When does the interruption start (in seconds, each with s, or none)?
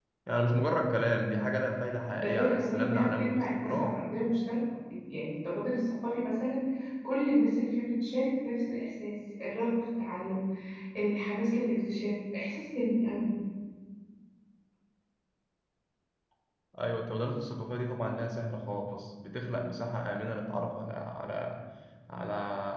2.2 s